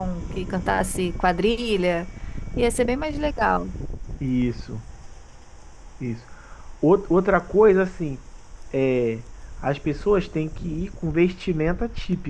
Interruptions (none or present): none